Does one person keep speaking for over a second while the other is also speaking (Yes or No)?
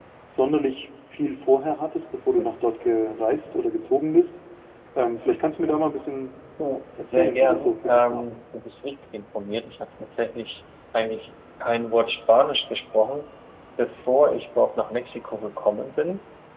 Yes